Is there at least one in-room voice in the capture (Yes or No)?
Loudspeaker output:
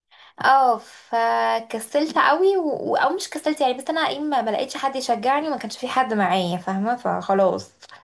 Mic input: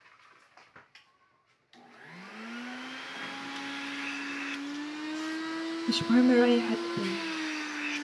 Yes